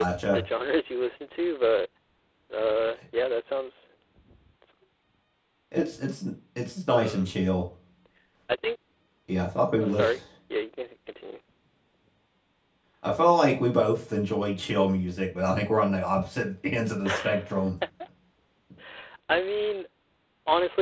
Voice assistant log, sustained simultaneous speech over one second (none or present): none